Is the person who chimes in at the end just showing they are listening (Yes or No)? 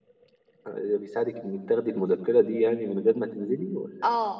No